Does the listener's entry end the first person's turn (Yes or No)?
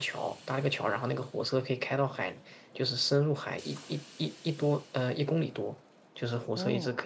No